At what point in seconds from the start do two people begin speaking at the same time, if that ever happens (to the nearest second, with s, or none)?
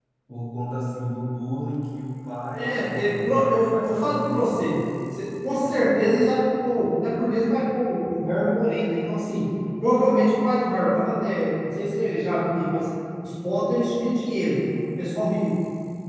3 s